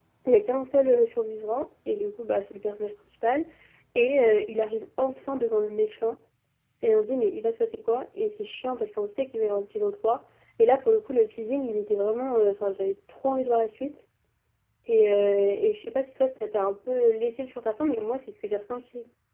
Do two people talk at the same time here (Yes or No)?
No